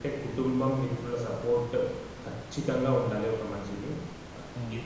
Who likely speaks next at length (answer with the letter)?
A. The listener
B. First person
A